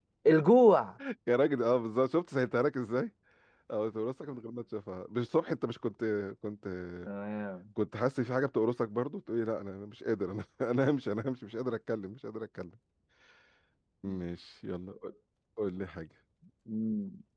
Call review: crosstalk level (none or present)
none